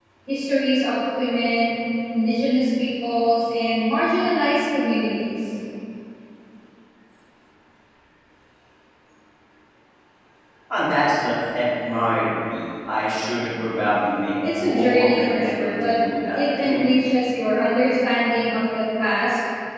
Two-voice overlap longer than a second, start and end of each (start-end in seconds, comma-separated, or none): 14.5-15.9